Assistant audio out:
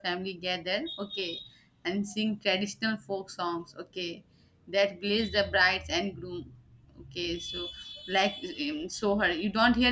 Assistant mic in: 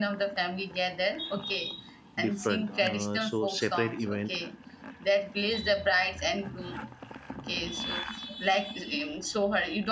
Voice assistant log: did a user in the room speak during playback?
Yes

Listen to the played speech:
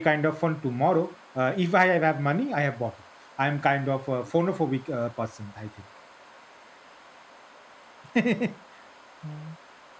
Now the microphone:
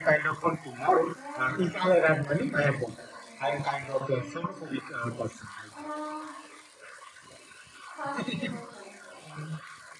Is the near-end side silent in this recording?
No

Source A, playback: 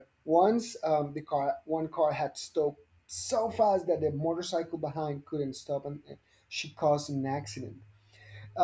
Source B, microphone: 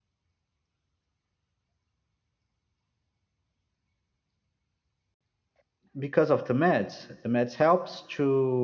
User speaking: Yes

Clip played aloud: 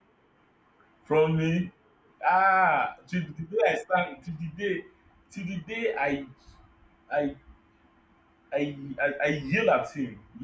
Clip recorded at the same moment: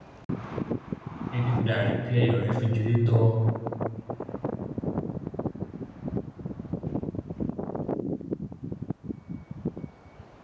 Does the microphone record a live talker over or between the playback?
Yes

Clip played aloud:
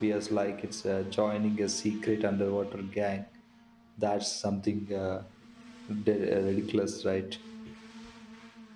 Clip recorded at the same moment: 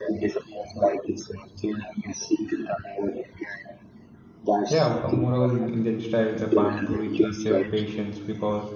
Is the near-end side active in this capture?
Yes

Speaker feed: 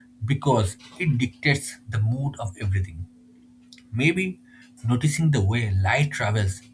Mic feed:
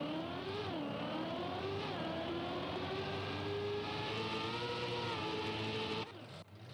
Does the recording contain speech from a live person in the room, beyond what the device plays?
No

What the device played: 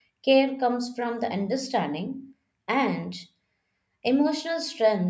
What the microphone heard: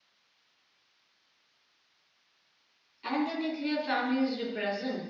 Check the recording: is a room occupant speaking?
Yes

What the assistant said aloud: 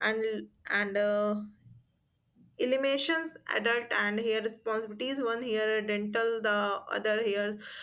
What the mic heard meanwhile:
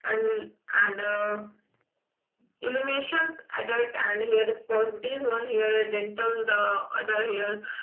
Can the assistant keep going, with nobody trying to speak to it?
Yes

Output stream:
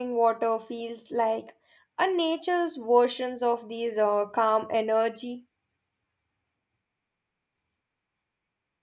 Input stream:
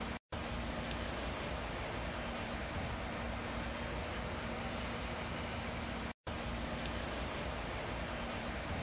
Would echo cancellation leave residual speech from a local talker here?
No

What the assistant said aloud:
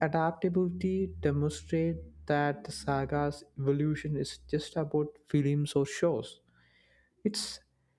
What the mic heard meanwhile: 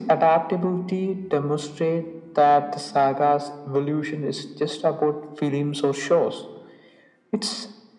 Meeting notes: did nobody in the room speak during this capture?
Yes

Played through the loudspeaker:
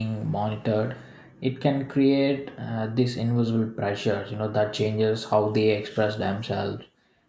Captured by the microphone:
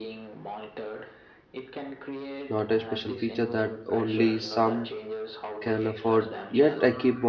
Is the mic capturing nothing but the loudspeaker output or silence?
No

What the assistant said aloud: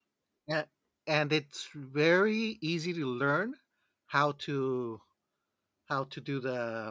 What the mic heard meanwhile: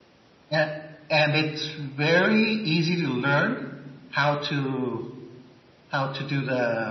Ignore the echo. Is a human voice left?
No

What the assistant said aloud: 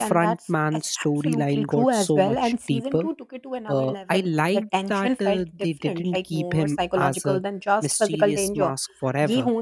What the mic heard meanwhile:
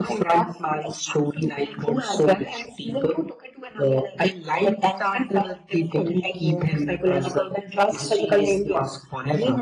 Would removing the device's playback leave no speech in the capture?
Yes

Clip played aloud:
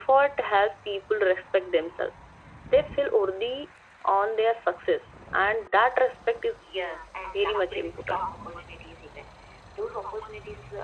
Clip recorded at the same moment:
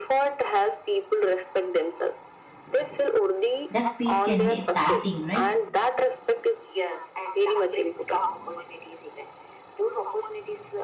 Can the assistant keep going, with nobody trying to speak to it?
No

